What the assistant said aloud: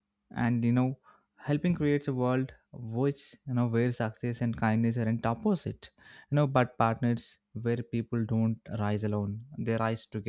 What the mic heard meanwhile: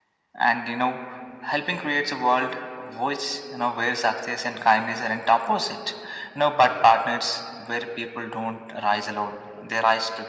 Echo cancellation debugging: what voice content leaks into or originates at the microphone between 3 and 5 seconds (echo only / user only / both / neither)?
echo only